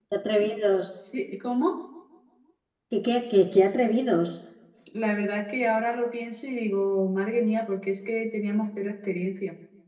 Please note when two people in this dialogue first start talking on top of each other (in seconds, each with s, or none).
none